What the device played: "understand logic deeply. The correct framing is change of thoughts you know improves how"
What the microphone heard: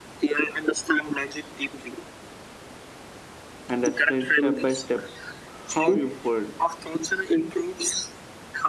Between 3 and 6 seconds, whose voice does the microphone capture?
both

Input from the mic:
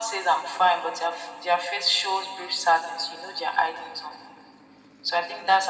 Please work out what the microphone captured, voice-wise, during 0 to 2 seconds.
echo only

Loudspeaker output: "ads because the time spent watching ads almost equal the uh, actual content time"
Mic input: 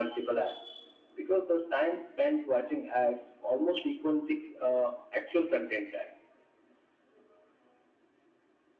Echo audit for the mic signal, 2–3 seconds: echo only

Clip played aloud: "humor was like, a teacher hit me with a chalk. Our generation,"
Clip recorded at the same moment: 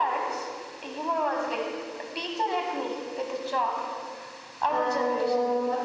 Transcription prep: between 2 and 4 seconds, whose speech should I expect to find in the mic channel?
echo only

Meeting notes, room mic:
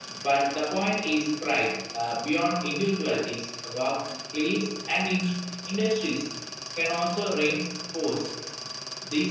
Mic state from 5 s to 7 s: echo only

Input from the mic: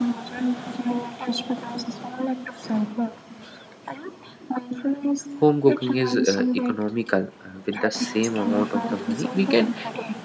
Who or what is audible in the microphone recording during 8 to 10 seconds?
both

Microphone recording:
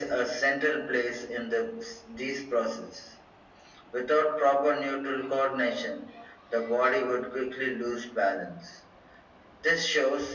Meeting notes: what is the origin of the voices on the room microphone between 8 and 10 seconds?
echo only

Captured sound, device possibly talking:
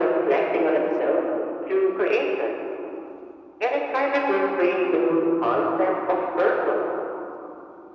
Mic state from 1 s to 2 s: echo only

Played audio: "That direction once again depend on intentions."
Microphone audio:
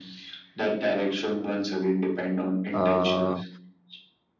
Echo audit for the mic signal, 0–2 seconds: echo only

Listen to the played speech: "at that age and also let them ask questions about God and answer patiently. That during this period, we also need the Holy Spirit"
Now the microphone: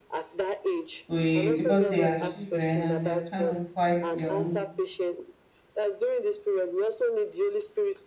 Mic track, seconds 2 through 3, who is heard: both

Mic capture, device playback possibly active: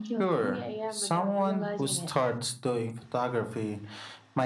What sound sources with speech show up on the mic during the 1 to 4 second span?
echo only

